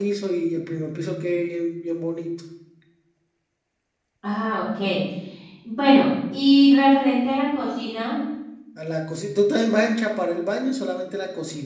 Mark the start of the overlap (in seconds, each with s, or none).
none